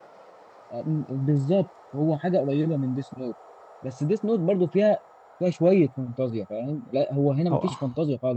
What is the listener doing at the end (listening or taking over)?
listening